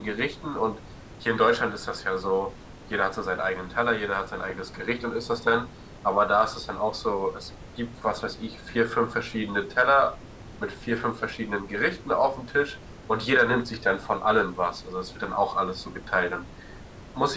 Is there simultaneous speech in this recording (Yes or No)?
No